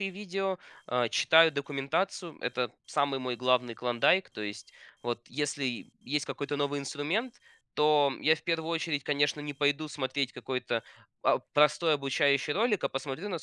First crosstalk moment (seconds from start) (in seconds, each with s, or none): none